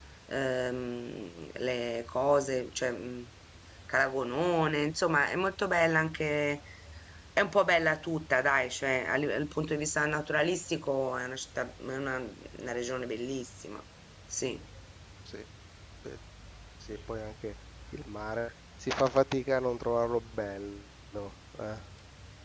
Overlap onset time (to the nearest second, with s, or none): none